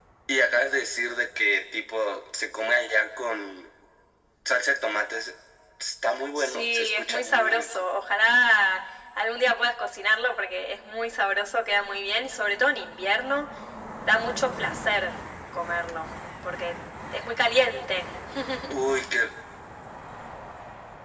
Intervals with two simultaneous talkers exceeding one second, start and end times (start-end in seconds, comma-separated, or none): 6.3-7.9